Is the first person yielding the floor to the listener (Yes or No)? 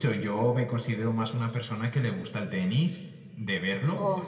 No